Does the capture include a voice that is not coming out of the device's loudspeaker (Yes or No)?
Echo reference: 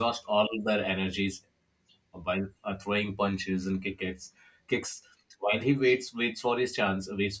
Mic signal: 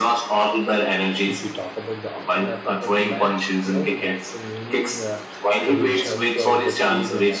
Yes